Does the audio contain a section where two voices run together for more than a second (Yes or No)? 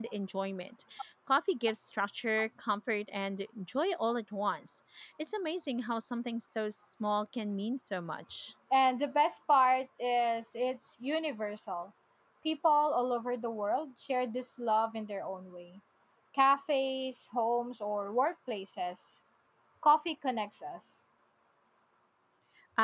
No